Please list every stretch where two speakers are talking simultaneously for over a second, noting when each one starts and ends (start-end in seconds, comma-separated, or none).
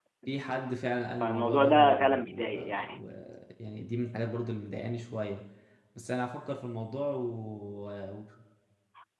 1.2-3.0